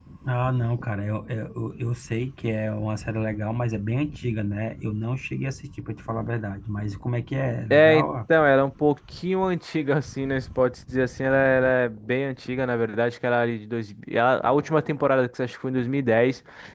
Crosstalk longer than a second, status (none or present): none